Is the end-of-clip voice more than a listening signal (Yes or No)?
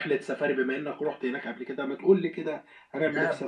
Yes